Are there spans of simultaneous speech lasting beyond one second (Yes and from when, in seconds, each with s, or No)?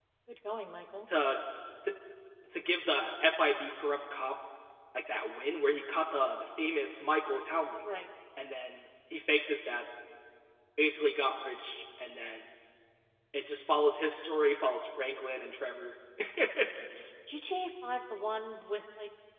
No